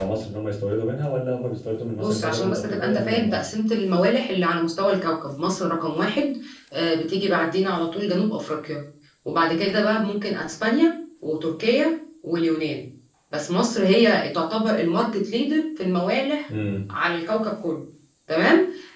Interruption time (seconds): 2.0 s

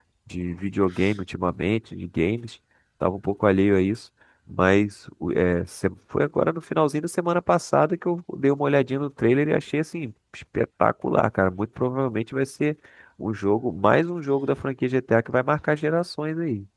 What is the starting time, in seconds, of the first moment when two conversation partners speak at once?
none

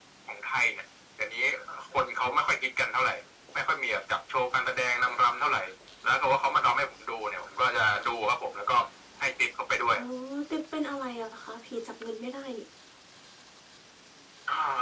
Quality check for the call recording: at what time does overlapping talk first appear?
none

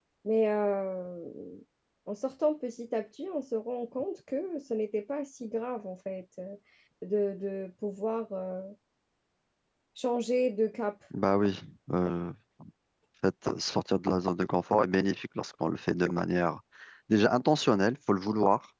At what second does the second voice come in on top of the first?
none

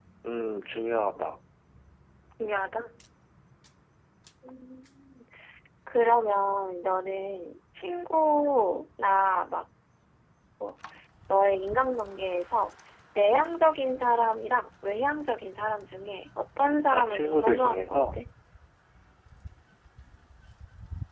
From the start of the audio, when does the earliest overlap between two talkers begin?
16.9 s

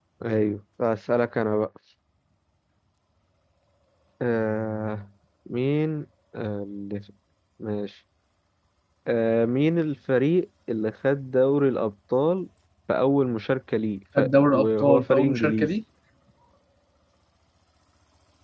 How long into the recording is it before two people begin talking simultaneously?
14.2 s

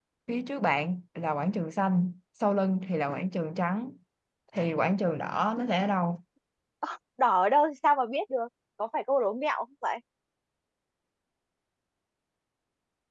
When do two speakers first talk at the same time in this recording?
none

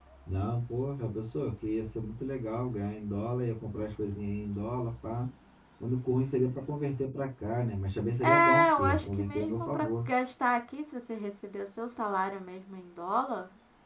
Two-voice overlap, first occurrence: 8.2 s

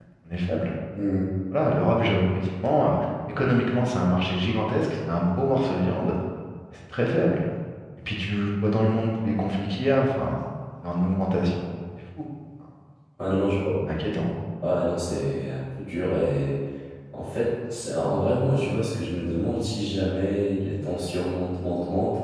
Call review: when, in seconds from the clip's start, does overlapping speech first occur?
none

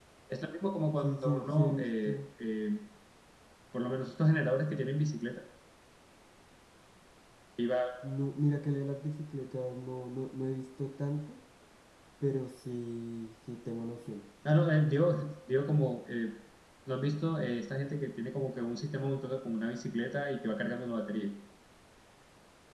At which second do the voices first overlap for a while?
1.0 s

